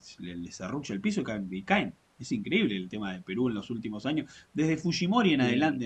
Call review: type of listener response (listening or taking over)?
listening